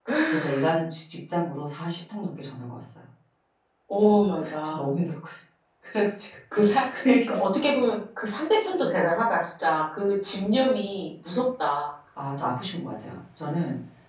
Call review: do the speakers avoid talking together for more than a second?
Yes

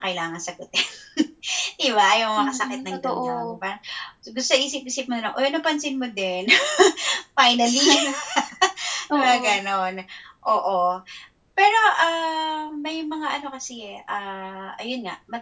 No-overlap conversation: No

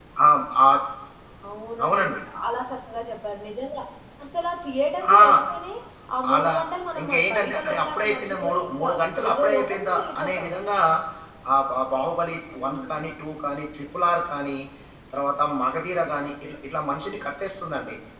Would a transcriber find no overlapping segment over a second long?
No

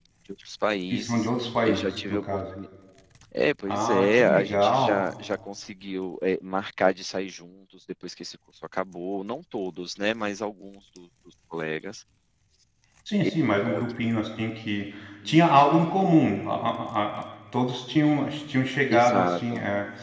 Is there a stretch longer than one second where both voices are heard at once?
Yes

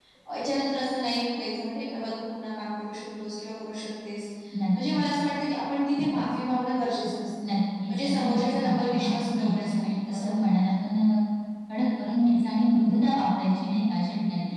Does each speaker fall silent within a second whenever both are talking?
No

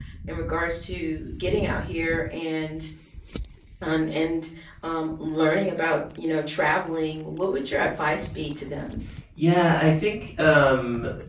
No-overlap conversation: Yes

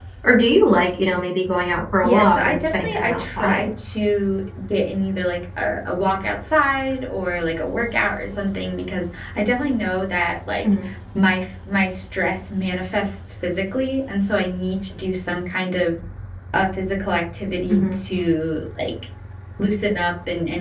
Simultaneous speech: Yes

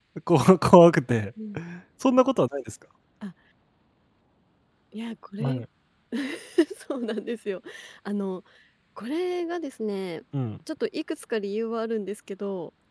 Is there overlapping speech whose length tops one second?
No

